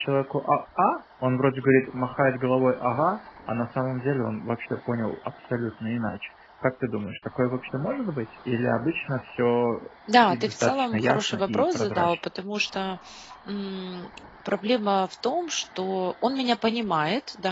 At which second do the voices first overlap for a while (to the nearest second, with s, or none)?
10 s